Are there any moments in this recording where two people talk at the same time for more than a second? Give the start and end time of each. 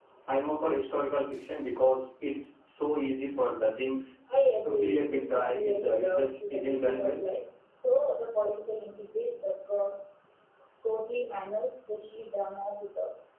4.6-7.2

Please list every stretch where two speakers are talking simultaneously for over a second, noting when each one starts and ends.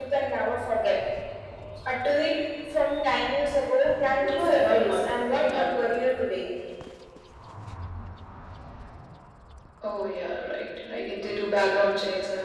4.3-5.6

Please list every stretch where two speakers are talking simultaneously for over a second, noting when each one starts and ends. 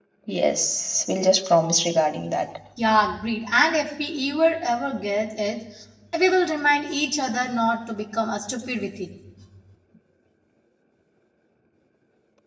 none

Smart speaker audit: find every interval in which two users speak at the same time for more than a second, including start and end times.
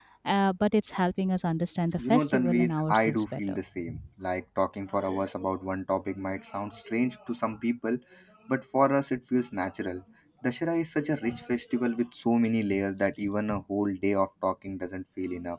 2.0-3.6

